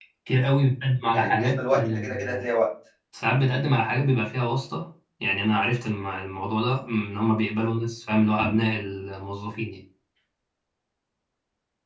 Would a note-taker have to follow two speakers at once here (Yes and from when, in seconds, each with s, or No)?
Yes, from 1.1 s